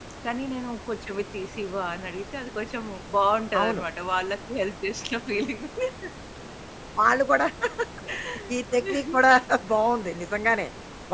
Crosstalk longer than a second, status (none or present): none